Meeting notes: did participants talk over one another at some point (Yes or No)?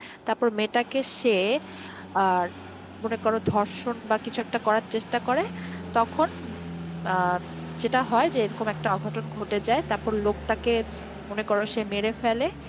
No